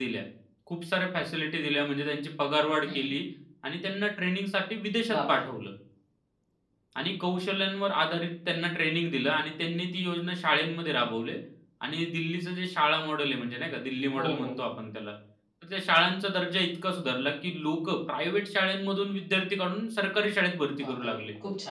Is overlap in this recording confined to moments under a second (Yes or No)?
Yes